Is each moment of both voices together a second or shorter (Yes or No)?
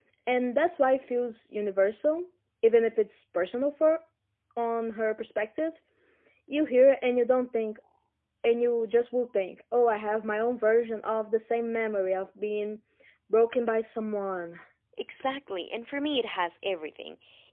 Yes